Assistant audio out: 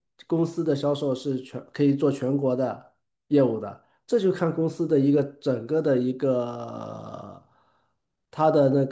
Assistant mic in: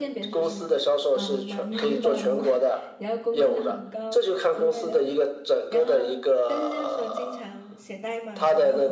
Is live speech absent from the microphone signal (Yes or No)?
No